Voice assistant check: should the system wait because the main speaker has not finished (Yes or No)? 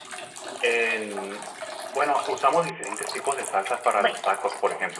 Yes